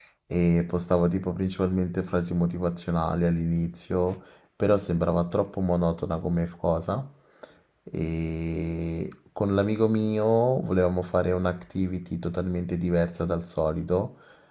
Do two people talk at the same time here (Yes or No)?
No